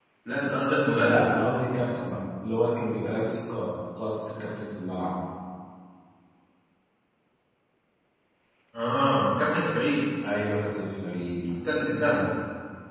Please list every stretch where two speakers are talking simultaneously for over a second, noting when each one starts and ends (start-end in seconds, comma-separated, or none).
none